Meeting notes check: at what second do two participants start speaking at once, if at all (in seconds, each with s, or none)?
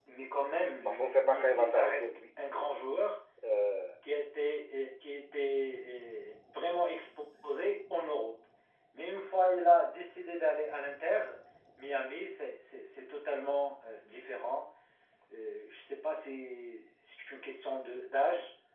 0.8 s